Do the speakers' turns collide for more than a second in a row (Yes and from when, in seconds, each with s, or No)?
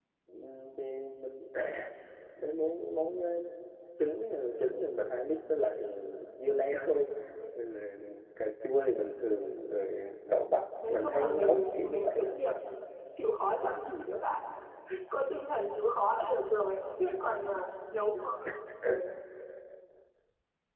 Yes, from 10.8 s